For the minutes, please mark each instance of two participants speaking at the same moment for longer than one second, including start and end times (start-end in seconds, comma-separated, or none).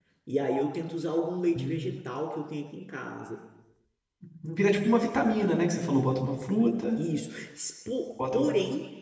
none